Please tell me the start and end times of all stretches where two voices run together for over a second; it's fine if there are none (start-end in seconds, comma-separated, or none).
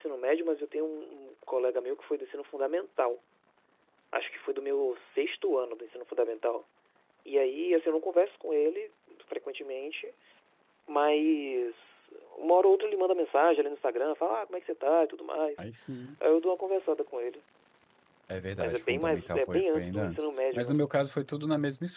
18.6-20.8